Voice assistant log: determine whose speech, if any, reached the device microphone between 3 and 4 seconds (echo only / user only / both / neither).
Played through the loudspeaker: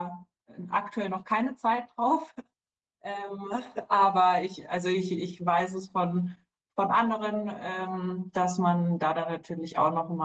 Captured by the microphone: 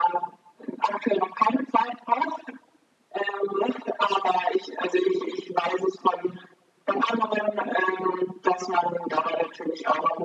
echo only